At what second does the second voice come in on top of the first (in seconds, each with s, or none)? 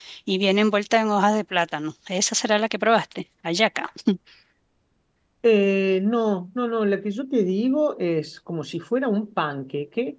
none